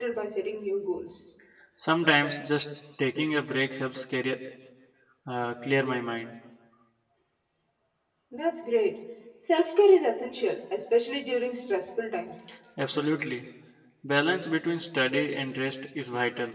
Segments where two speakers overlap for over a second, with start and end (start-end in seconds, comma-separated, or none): none